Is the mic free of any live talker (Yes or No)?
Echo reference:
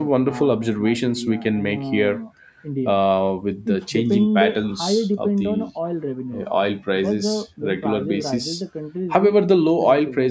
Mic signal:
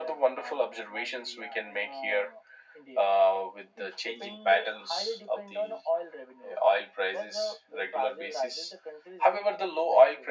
Yes